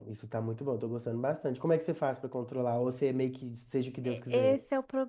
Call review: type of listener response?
taking over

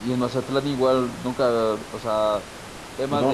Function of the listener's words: listening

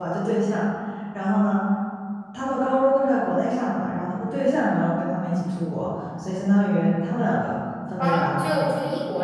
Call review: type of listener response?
taking over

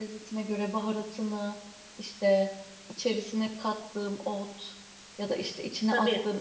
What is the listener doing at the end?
listening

